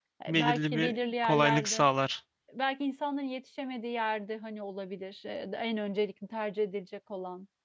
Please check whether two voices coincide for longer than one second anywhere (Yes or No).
Yes